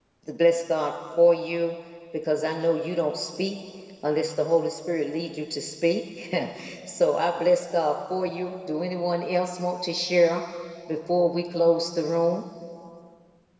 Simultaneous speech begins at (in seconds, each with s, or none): none